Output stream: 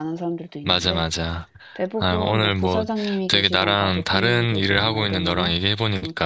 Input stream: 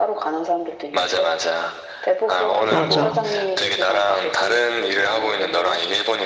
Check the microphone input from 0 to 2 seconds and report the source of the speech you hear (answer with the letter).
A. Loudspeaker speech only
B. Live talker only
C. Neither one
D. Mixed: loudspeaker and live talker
A